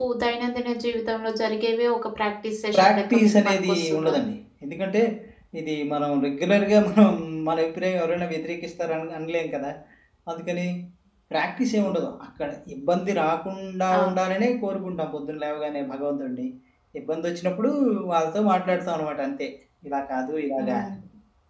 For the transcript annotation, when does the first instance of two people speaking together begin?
2.7 s

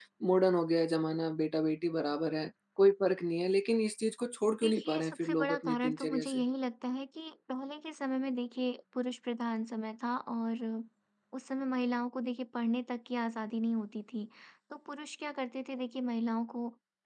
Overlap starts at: 4.6 s

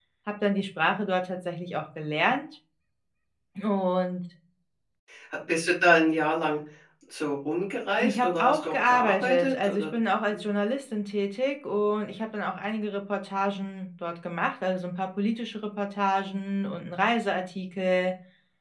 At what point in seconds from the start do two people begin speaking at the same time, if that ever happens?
8.0 s

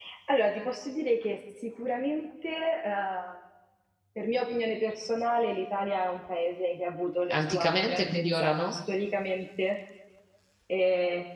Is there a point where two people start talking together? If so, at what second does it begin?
7.3 s

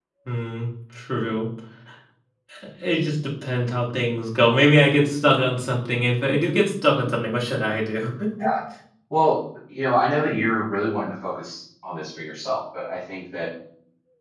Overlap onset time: none

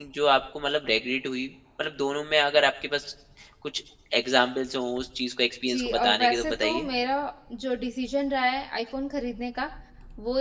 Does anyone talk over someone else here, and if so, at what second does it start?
5.7 s

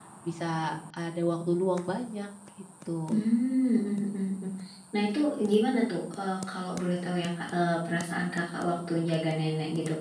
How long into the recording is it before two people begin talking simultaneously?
none

